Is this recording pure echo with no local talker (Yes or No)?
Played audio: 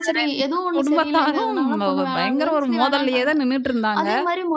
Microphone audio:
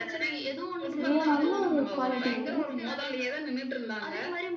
No